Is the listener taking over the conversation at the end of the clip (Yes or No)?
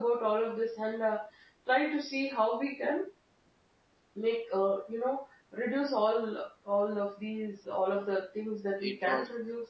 No